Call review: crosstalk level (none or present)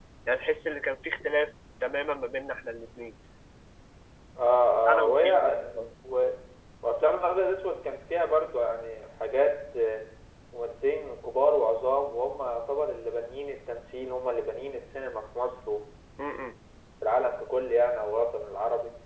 present